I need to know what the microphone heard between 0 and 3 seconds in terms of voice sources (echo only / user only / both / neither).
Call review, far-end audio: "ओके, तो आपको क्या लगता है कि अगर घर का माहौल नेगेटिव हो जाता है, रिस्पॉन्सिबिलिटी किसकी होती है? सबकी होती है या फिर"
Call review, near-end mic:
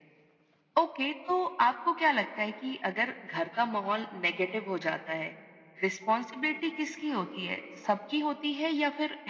echo only